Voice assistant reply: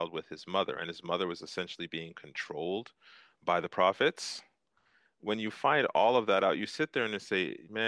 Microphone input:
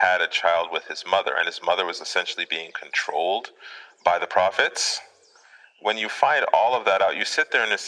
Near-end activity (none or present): none